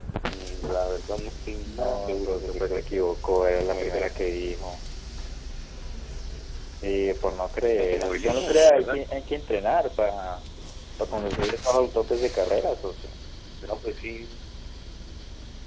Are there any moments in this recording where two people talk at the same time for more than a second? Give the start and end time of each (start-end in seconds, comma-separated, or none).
1.6-3.0, 7.8-9.0